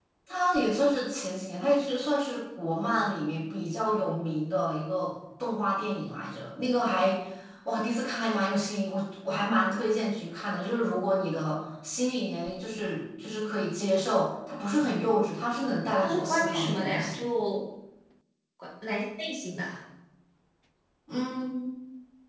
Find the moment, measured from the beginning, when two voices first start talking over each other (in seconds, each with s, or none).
16.0 s